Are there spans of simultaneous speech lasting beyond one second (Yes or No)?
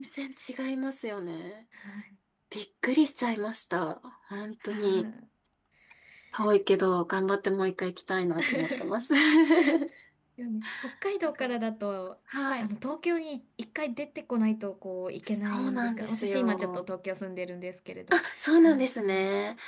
Yes